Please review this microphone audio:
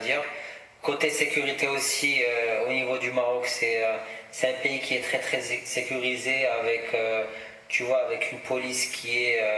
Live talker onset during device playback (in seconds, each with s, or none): none